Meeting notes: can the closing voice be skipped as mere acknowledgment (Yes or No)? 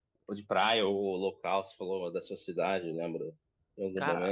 No